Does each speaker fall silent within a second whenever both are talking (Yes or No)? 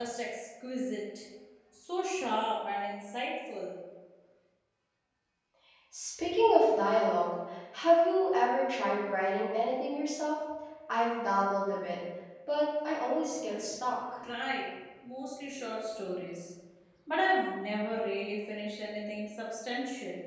Yes